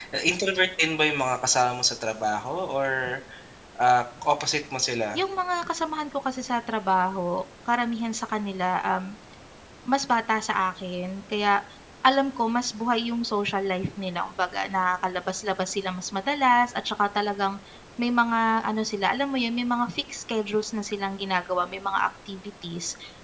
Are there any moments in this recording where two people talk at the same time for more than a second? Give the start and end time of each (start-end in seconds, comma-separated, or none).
none